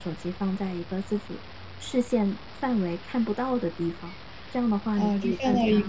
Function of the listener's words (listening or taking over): taking over